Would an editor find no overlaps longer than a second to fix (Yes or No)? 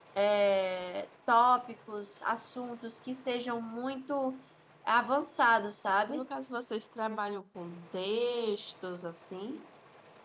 Yes